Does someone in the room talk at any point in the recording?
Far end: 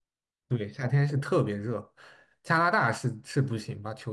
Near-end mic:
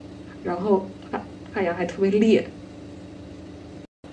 Yes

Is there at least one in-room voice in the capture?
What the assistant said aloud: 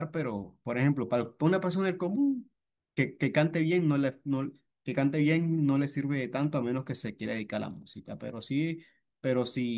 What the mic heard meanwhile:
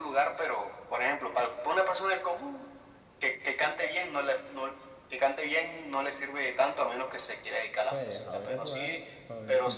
Yes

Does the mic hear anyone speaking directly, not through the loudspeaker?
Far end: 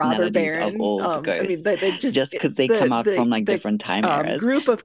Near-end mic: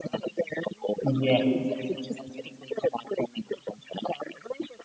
Yes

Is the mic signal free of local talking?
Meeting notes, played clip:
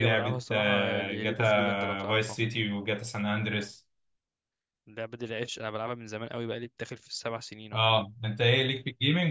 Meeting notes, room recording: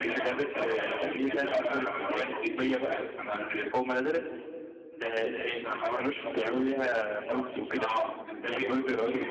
No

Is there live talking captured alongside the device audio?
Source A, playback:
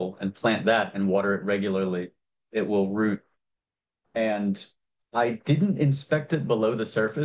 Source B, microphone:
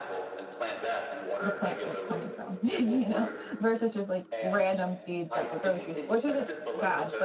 Yes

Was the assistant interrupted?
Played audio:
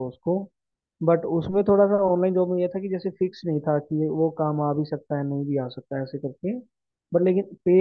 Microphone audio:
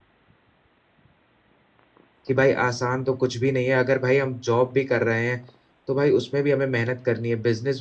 Yes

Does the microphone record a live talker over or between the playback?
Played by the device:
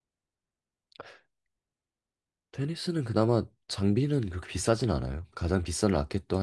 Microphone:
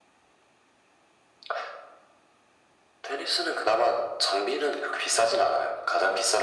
No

